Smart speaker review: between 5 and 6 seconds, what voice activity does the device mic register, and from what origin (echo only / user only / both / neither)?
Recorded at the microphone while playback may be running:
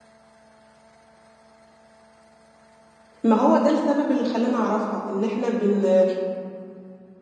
user only